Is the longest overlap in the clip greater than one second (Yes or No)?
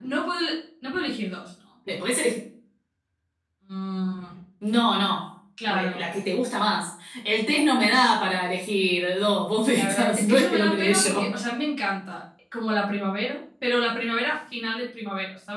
Yes